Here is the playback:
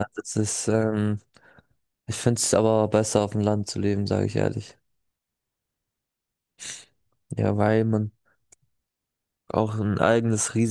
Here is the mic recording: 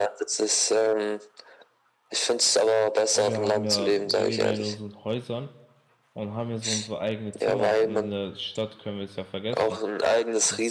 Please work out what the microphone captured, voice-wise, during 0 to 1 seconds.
echo only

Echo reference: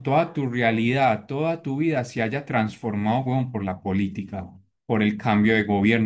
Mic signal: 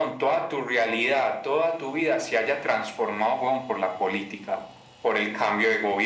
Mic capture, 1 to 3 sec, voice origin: echo only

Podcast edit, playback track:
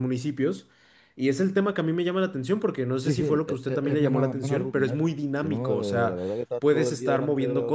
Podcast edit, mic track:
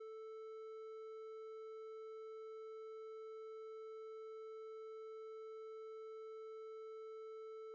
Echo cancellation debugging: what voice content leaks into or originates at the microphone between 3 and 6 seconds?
neither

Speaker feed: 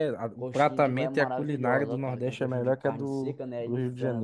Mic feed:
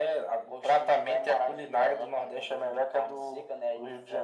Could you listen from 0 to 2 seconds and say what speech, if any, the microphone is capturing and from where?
echo only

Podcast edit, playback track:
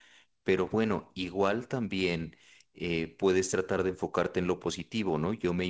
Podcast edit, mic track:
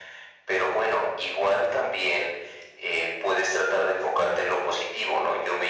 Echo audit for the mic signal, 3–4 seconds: echo only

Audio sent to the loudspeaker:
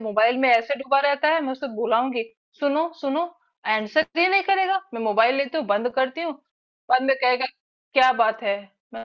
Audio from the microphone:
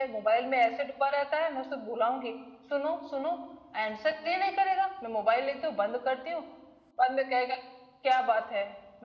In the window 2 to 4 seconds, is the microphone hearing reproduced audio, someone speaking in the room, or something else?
echo only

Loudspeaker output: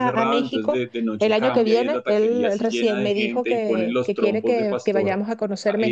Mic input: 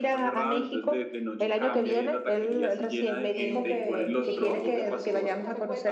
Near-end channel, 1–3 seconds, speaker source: echo only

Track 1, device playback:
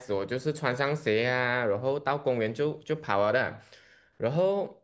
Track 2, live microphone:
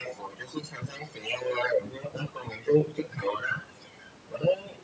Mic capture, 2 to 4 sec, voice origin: echo only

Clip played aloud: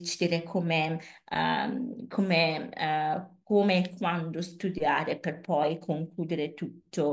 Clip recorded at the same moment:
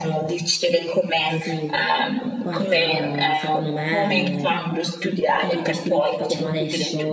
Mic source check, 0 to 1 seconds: echo only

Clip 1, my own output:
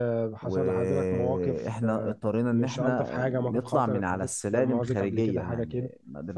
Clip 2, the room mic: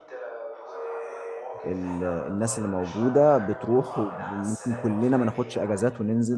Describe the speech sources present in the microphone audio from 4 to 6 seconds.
both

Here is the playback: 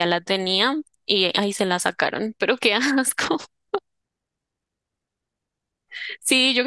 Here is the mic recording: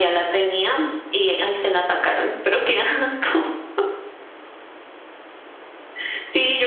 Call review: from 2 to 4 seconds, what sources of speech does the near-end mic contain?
echo only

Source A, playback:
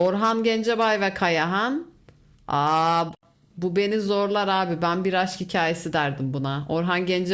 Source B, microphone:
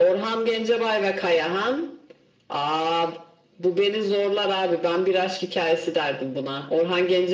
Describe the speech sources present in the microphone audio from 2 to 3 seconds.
echo only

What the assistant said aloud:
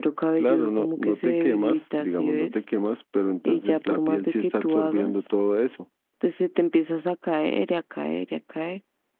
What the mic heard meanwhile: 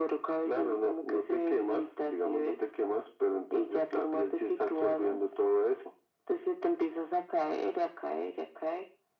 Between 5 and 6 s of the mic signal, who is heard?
echo only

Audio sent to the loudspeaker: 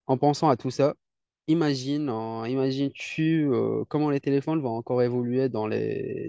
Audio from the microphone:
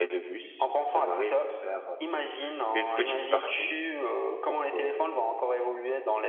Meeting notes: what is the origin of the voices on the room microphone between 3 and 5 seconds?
both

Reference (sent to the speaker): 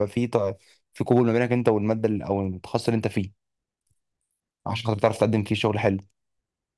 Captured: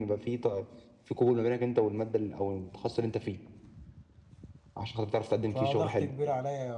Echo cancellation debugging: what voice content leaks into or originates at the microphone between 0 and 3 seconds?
echo only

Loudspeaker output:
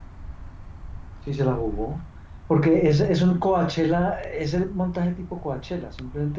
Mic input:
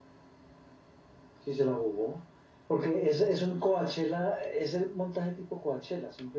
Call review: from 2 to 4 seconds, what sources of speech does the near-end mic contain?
echo only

